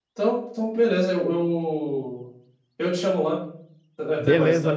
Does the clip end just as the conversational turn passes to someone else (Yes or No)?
Yes